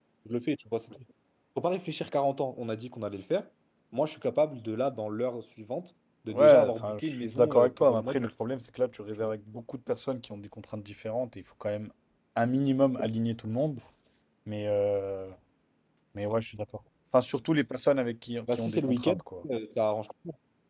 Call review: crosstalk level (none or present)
present